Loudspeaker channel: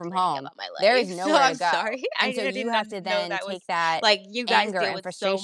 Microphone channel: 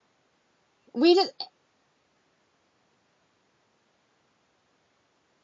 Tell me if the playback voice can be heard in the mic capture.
No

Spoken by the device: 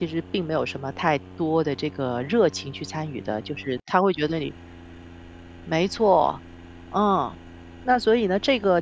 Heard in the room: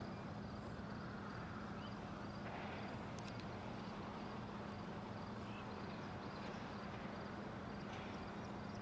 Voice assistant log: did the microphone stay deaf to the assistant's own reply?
Yes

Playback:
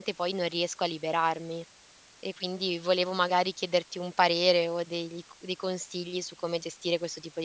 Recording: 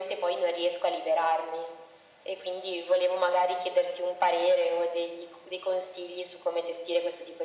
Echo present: Yes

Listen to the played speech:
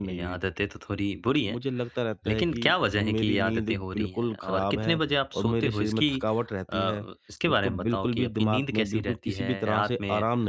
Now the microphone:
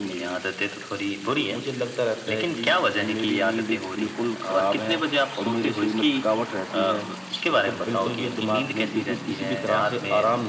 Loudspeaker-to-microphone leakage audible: Yes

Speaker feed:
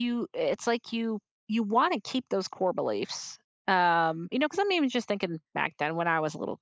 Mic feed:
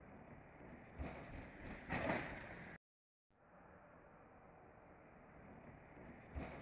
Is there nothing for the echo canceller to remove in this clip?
Yes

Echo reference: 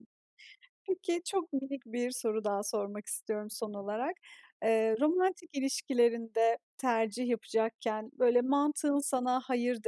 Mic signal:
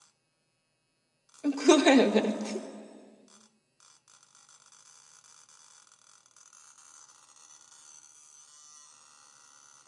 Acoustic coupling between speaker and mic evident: No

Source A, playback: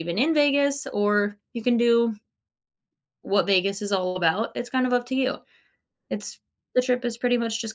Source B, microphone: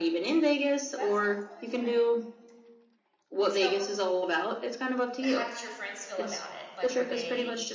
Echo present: Yes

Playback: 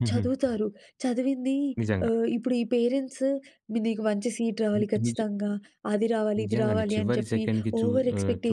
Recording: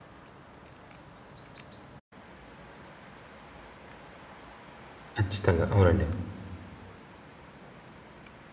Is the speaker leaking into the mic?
No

